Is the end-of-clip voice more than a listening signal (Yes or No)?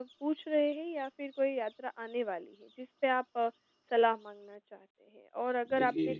No